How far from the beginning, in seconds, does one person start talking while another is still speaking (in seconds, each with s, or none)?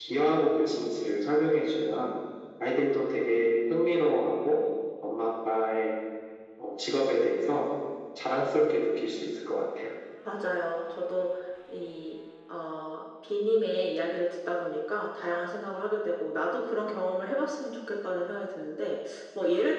none